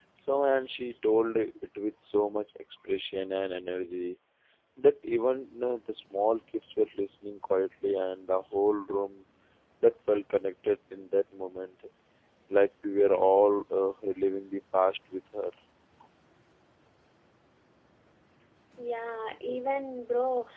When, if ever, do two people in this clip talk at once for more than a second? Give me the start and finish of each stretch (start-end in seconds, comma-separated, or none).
none